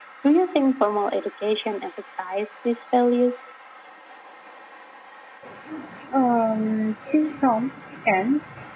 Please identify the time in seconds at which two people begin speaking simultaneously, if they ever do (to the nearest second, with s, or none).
none